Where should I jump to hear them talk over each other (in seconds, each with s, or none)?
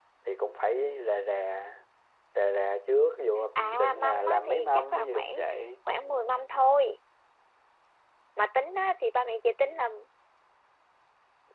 3.5 s